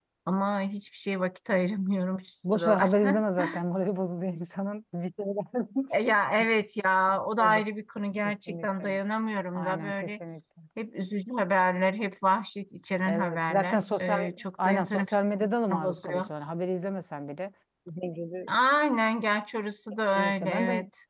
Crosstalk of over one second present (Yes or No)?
Yes